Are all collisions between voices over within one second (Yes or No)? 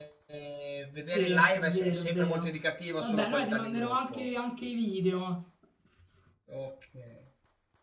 No